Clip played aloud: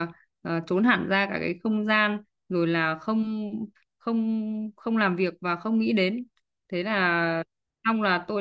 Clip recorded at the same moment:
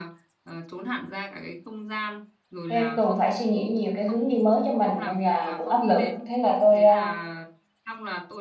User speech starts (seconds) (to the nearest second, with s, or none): 3 s